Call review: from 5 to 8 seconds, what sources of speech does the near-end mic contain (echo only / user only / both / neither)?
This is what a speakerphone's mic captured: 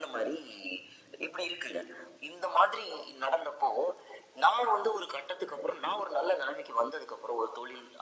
echo only